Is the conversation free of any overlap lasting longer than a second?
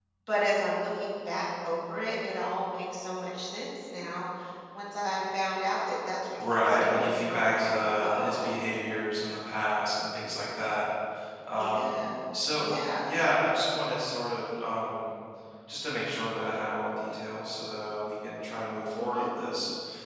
No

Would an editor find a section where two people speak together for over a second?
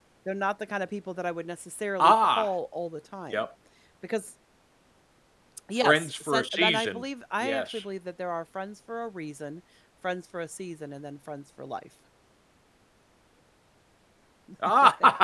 Yes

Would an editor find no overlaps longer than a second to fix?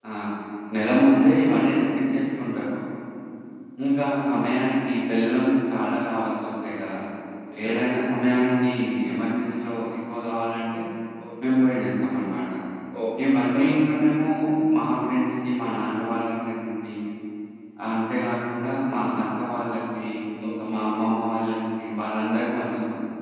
Yes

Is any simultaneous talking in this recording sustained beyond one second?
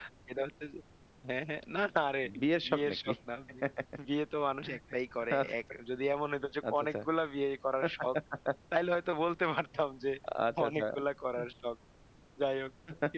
No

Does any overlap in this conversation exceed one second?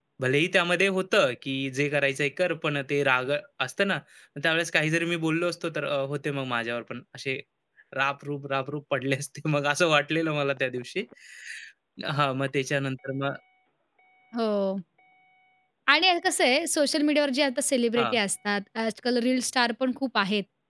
No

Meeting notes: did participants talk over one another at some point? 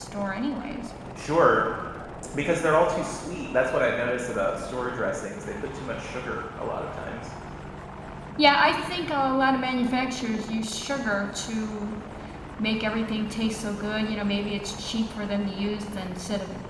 No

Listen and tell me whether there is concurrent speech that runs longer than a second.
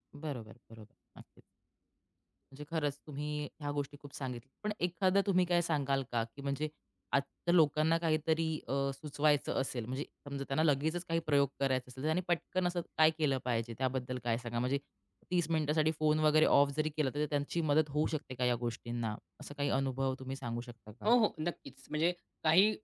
No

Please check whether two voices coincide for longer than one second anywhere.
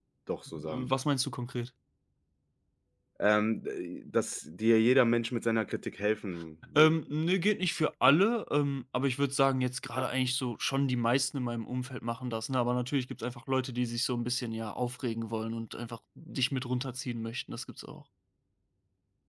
No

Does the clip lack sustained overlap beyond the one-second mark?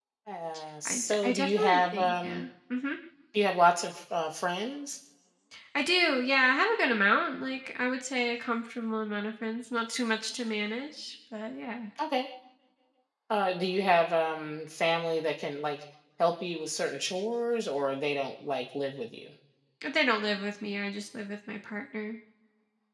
No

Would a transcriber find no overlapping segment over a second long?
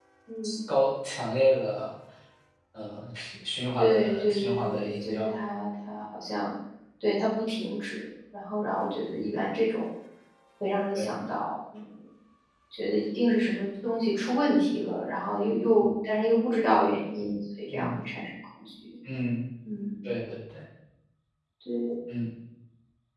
No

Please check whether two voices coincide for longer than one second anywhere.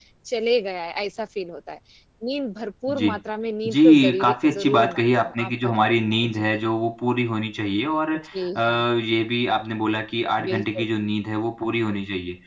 Yes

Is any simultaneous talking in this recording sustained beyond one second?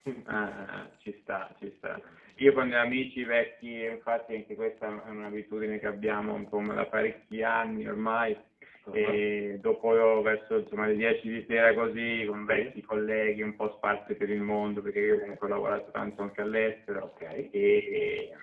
No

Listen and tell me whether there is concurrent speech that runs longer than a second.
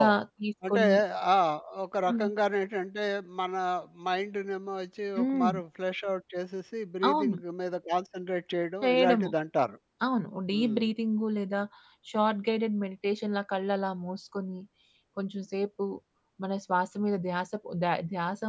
No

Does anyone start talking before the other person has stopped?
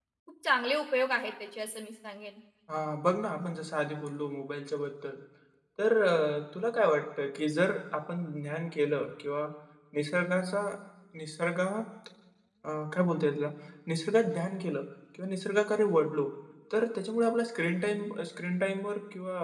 No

